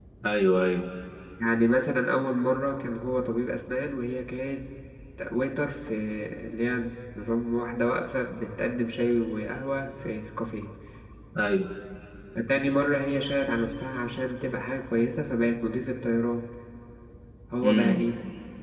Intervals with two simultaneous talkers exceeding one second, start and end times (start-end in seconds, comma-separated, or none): none